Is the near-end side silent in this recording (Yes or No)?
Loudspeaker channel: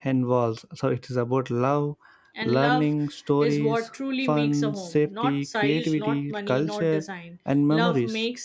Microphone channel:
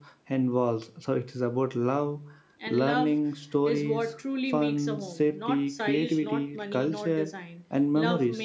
Yes